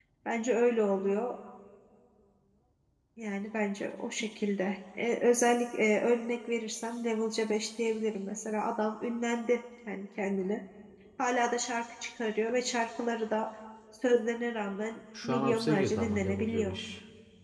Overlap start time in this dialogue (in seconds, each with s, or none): 15.1 s